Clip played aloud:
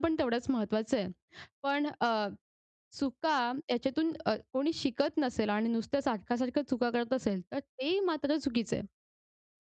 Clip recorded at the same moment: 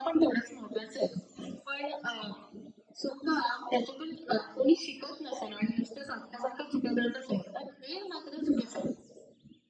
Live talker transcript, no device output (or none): none